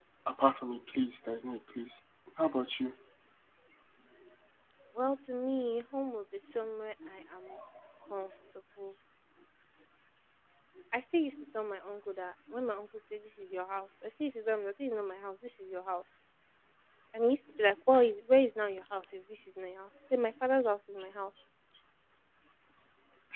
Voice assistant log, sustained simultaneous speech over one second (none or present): none